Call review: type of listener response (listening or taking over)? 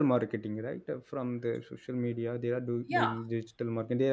listening